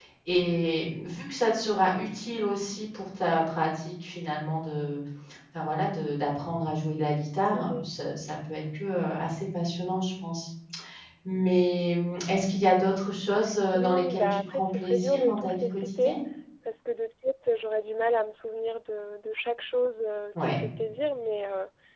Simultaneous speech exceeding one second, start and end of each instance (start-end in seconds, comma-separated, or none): 13.7-16.2